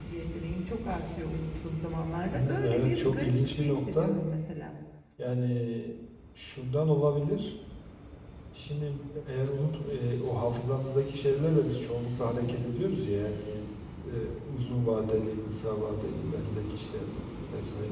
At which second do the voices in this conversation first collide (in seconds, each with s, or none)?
2.3 s